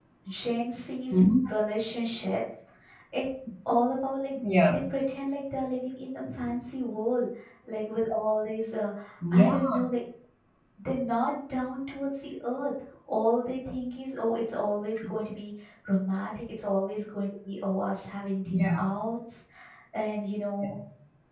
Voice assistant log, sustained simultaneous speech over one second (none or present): none